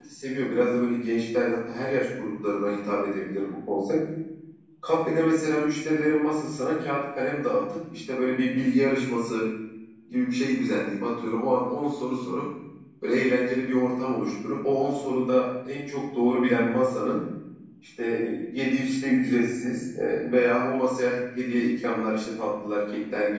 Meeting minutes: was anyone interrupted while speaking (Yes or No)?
No